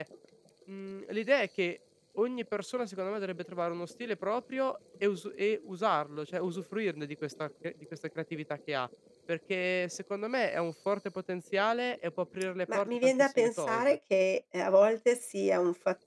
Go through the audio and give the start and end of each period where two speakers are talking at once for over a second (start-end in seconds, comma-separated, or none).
12.7-14.0